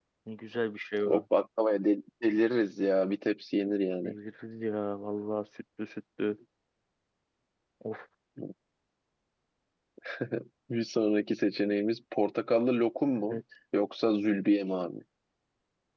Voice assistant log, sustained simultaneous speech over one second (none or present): none